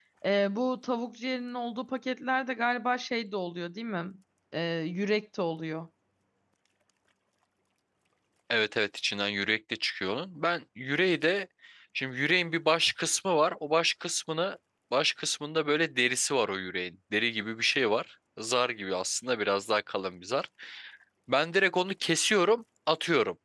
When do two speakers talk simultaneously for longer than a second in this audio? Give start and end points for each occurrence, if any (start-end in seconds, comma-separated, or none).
none